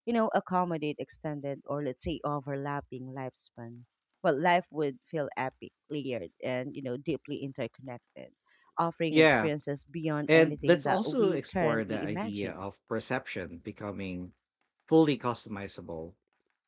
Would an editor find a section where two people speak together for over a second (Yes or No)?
Yes